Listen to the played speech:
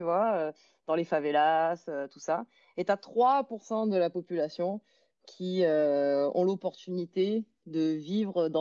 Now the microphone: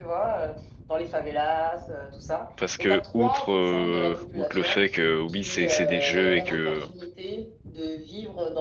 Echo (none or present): present